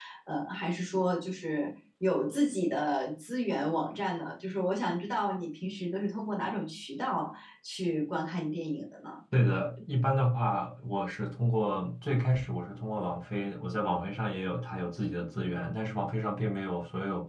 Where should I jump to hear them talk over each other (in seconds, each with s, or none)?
none